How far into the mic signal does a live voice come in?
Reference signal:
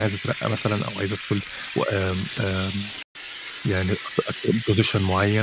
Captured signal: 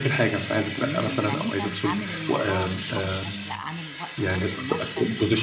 1 s

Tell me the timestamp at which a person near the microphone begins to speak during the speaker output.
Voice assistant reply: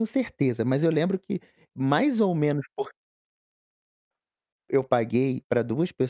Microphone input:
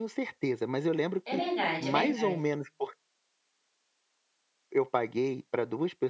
1 s

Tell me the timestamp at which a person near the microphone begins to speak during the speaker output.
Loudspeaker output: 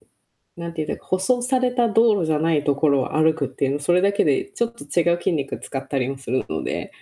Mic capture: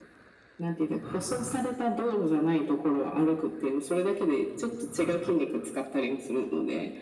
none

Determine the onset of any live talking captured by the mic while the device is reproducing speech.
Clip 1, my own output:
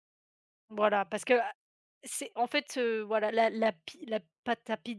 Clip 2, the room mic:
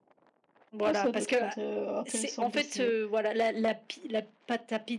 1 s

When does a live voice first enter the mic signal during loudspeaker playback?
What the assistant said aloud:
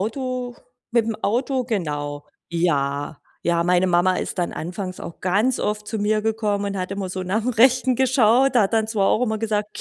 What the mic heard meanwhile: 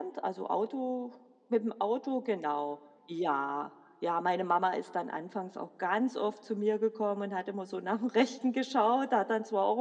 none

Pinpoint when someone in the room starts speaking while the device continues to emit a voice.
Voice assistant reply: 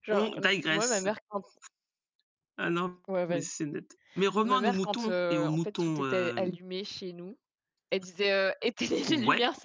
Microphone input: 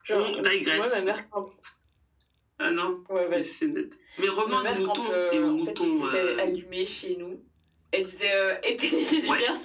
none

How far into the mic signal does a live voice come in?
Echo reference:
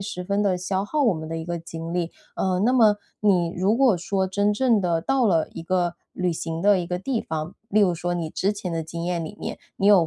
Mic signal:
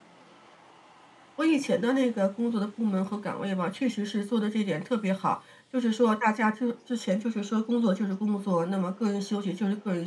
1 s

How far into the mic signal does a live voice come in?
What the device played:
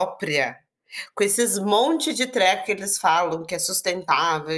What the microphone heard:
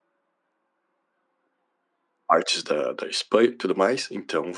2 s

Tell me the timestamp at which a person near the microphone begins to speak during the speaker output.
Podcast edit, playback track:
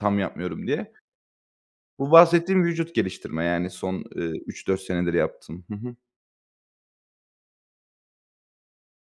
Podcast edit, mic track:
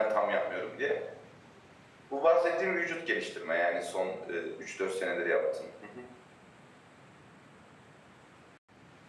none

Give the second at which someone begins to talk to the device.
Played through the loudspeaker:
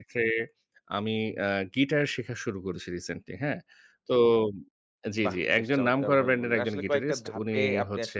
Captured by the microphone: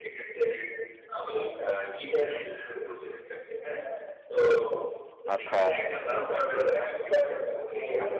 5 s

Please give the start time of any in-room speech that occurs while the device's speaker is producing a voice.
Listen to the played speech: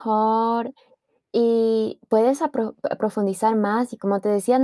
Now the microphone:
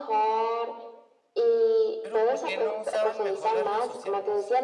2 s

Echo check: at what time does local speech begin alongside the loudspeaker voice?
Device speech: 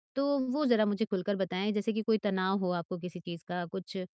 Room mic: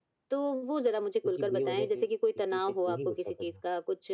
1 s

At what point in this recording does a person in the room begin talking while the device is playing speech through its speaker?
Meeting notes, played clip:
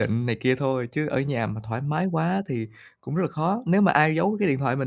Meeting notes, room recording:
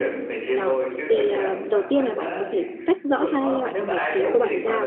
1 s

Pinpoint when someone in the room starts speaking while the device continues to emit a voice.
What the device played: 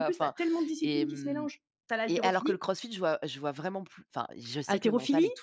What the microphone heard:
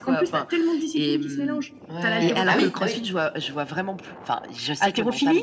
2 s

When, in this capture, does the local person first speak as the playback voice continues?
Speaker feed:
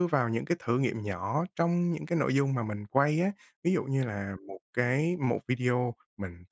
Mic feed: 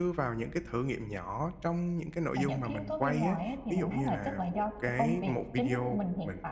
2 s

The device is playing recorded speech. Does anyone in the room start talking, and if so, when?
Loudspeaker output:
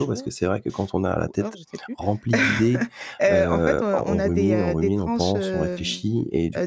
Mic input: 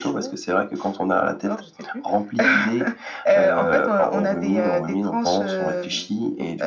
none

